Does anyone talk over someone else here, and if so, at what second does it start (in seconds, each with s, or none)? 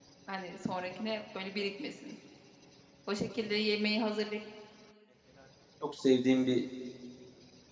none